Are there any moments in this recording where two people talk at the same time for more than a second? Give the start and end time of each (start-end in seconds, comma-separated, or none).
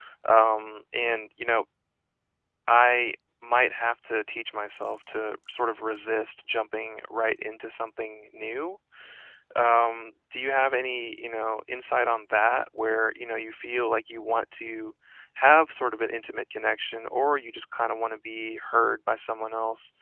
none